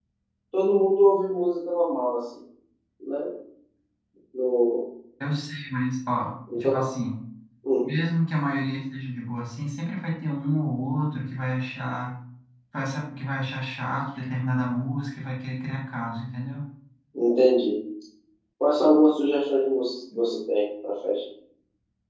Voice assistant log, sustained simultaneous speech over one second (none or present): none